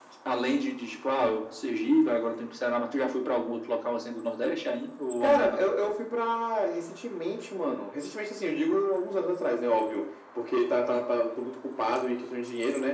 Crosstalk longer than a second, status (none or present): none